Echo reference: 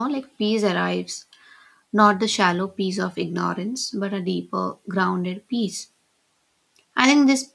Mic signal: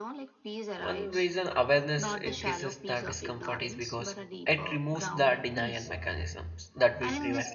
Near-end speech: present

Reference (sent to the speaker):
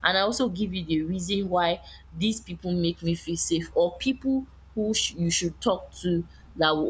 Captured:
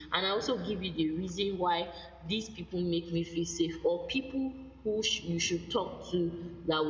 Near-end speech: none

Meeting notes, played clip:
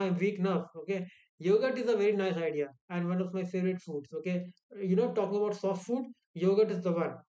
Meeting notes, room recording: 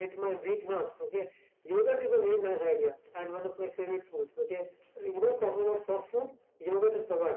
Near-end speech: none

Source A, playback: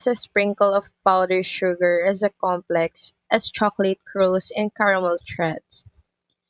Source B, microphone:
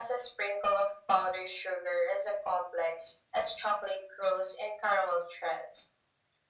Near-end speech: none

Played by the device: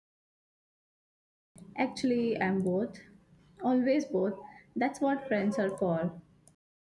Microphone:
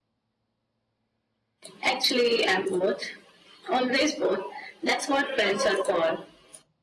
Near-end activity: none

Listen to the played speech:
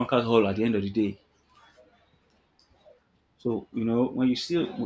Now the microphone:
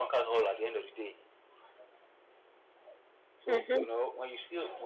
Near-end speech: present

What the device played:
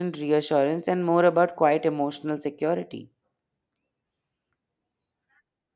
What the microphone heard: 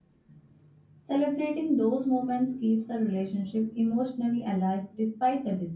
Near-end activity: present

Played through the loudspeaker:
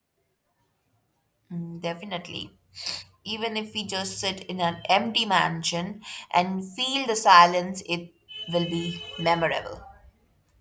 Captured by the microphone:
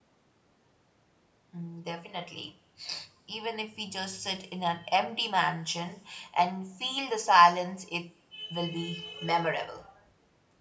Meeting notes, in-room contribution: none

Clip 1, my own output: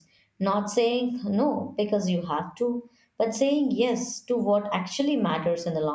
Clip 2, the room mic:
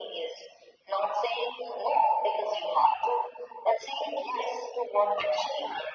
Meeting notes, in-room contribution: none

